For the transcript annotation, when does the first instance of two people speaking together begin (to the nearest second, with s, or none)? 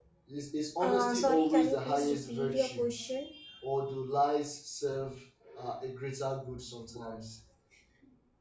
1 s